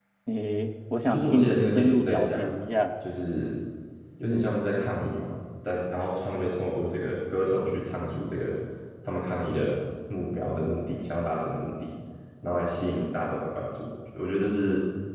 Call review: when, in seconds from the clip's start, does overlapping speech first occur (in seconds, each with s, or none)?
1.1 s